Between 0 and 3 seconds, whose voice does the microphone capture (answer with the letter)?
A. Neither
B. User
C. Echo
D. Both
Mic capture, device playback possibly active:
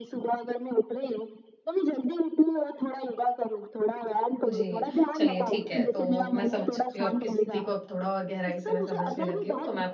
C